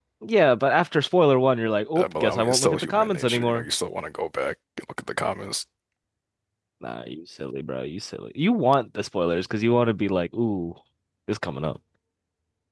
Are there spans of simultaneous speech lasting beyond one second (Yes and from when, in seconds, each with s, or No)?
Yes, from 2.0 s